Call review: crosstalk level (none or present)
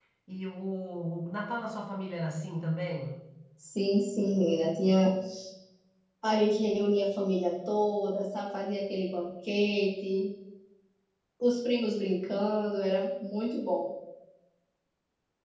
none